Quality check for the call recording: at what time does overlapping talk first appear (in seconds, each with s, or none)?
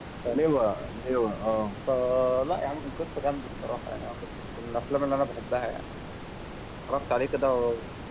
none